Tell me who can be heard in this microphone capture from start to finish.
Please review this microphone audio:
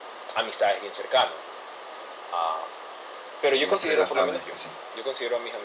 both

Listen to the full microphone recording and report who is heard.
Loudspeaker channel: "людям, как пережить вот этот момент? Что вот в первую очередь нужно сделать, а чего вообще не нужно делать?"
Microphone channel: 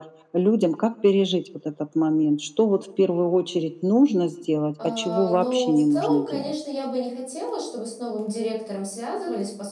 both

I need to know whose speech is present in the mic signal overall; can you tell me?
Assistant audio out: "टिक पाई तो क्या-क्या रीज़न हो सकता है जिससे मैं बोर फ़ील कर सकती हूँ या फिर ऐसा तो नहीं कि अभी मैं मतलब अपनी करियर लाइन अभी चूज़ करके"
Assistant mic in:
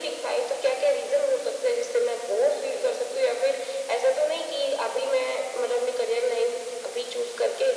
echo only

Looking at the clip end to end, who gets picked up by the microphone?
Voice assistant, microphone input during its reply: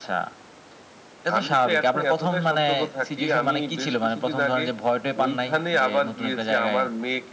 echo only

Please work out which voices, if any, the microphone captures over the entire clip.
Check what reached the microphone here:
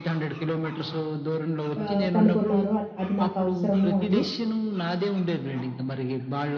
both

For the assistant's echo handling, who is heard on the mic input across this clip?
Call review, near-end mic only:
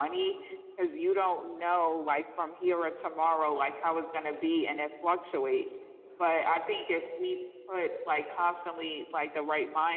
echo only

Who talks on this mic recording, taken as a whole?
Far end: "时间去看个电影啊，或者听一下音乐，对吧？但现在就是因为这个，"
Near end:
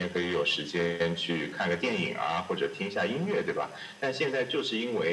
echo only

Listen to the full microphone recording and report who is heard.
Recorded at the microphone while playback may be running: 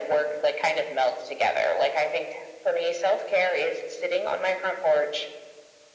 echo only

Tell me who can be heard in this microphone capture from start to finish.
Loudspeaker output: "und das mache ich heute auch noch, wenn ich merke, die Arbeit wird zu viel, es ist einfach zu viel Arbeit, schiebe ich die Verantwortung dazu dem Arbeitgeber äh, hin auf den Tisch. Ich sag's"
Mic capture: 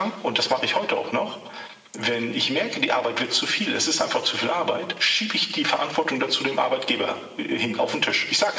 echo only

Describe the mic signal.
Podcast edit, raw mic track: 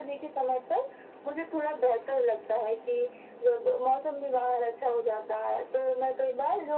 echo only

